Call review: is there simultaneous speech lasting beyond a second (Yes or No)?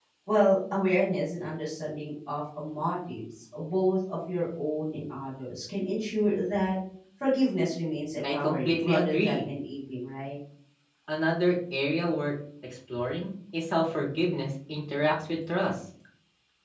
Yes